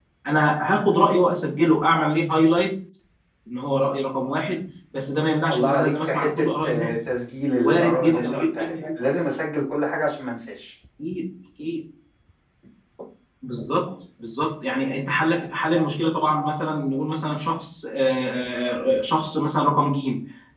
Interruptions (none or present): present